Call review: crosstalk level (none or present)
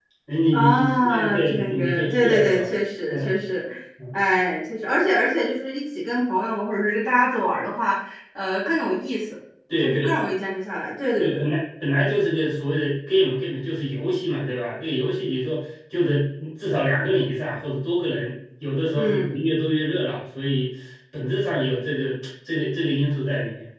present